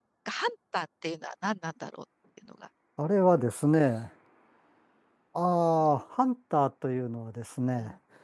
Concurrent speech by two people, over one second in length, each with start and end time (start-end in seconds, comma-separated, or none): none